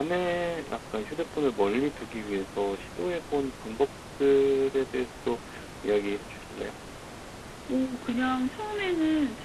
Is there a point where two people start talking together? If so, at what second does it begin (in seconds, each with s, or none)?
none